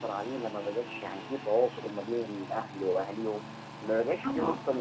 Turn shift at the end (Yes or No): Yes